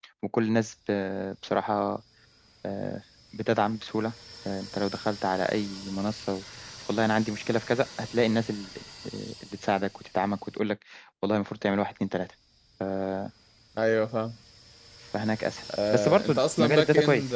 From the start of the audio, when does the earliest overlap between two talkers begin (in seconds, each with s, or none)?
15.7 s